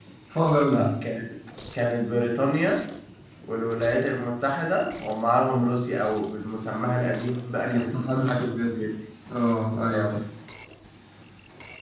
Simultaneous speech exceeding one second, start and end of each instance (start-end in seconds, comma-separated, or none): 7.7-8.9